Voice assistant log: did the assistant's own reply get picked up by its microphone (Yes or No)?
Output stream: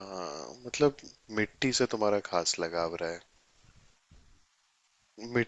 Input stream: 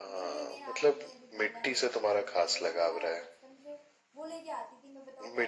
Yes